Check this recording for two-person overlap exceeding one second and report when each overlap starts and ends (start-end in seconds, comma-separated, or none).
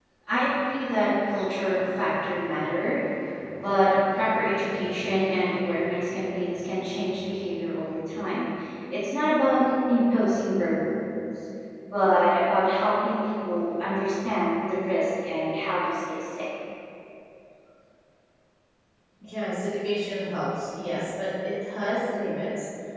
none